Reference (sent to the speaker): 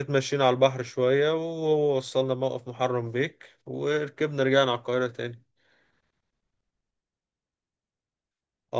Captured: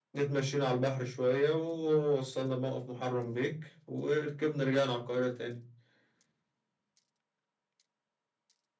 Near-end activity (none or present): none